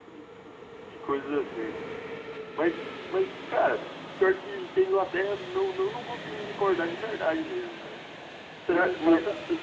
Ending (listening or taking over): taking over